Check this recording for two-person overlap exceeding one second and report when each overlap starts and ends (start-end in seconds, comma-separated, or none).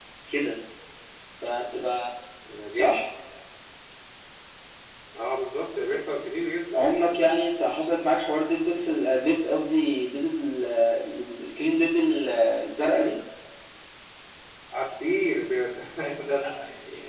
none